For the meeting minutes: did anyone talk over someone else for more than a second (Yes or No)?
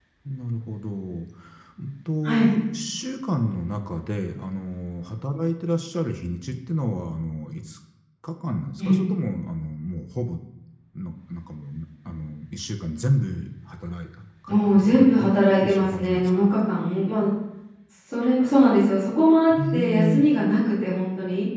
Yes